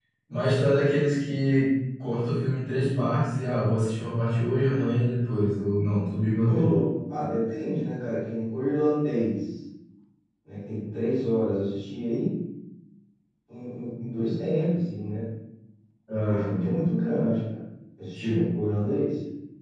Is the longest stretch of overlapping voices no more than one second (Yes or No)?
Yes